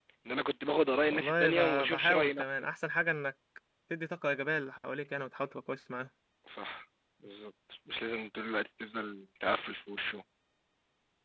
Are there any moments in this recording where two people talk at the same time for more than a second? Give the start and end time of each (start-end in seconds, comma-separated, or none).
1.1-2.7